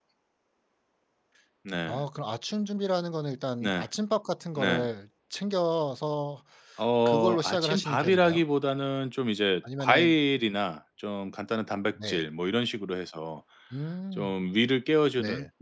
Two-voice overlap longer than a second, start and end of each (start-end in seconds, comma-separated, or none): 7.0-8.4